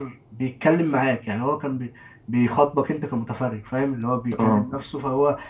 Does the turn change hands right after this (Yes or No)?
No